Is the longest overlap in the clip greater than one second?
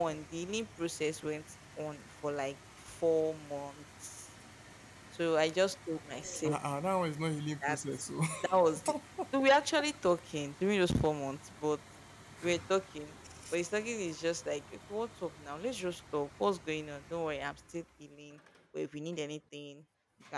No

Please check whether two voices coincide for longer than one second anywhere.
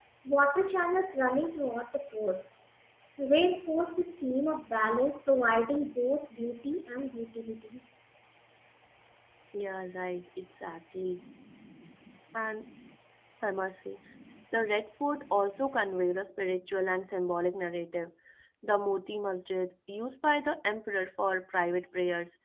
No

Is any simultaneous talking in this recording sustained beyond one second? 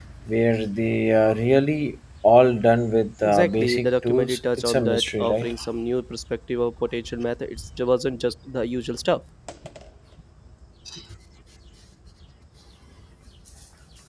Yes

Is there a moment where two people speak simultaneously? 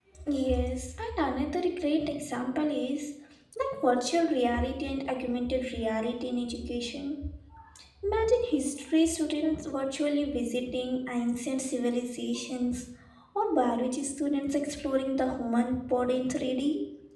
No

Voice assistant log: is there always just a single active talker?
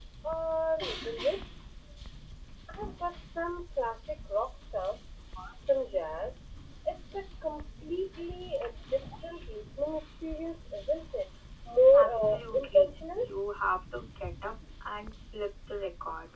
No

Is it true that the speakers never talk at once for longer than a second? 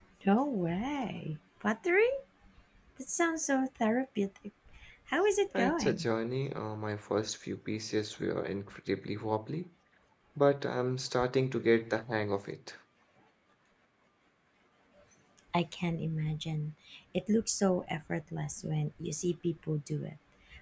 Yes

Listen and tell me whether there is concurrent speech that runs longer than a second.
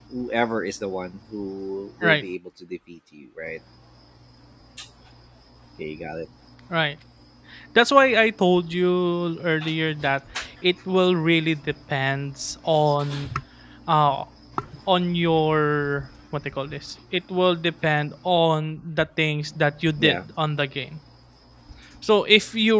No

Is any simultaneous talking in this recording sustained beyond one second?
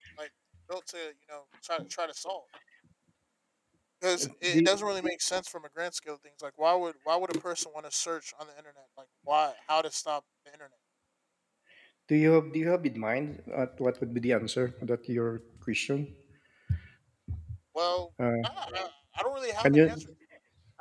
No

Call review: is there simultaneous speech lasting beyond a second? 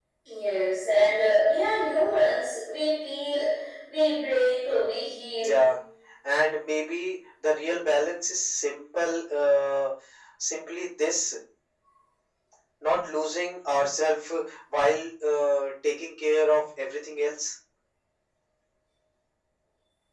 No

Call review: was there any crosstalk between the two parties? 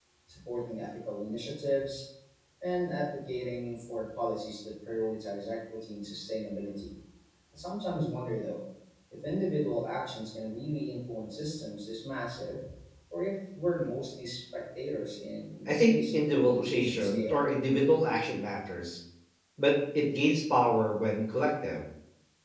Yes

